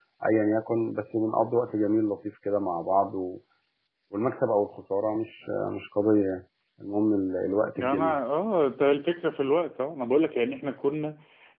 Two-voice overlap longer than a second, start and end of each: none

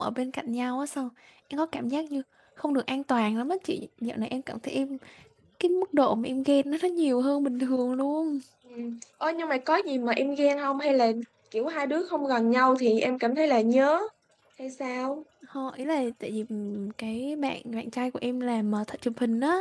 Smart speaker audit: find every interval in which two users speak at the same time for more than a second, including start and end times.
none

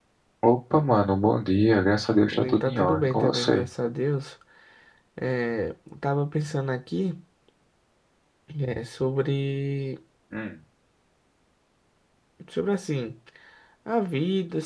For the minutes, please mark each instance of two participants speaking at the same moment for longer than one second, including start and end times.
2.3-3.7

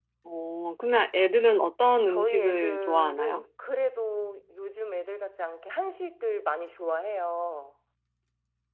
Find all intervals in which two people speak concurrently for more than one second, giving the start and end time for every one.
2.1-3.4

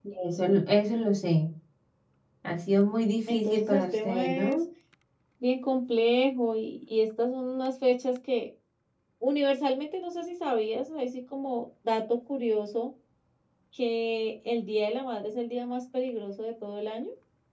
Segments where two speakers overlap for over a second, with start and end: 3.3-4.6

